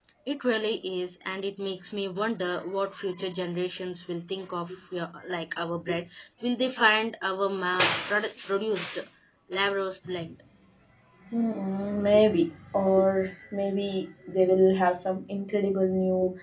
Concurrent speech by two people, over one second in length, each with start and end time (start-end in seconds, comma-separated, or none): none